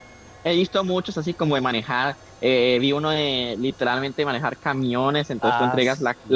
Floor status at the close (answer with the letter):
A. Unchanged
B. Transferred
A